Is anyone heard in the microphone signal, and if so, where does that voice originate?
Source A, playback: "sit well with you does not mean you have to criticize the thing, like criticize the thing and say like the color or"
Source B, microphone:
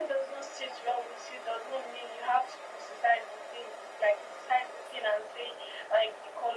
echo only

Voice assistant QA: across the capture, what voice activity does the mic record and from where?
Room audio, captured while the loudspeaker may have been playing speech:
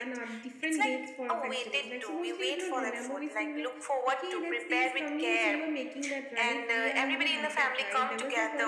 both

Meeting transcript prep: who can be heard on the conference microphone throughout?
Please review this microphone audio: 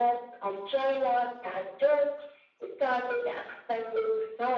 echo only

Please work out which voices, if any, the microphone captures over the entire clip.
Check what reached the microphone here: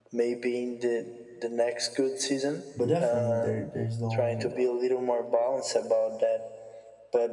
both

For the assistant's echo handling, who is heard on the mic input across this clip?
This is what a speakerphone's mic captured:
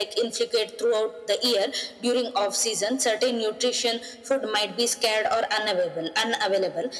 echo only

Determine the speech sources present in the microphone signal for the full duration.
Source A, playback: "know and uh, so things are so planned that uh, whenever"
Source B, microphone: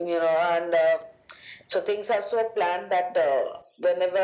echo only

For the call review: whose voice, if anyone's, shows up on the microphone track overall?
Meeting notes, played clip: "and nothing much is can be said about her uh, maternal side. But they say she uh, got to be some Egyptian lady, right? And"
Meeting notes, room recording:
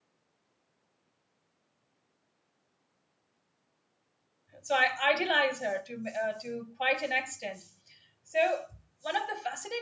user only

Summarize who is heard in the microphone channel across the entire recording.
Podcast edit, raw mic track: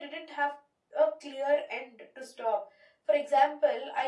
echo only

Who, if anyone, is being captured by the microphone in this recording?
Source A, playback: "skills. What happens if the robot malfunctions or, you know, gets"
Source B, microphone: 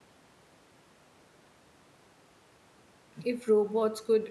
user only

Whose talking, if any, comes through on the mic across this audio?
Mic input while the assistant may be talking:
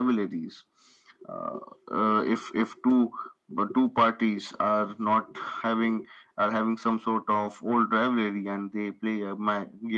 echo only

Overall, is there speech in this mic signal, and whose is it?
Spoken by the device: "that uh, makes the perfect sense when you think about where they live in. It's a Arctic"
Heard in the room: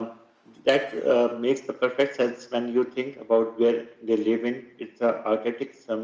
echo only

